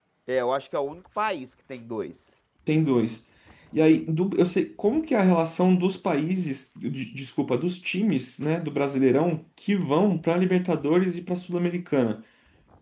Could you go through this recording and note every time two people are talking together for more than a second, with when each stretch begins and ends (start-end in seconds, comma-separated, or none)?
none